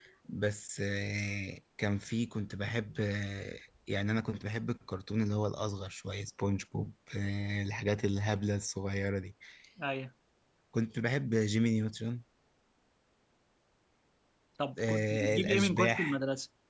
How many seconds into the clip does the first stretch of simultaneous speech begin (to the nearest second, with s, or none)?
15 s